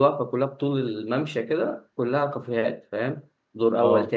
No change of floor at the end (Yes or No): Yes